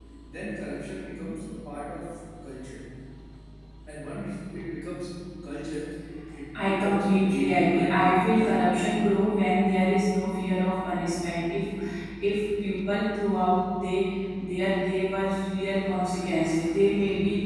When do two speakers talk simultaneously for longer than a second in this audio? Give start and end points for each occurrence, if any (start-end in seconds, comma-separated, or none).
6.7-8.3